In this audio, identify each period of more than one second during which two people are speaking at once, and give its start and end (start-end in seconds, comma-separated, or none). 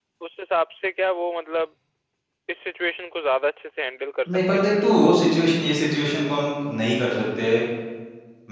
none